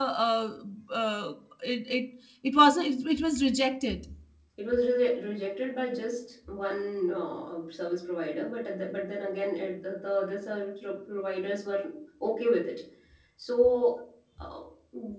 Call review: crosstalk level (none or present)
none